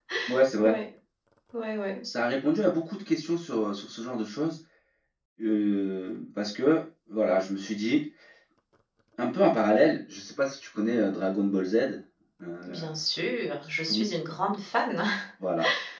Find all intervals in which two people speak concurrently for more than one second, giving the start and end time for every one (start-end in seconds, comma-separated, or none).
none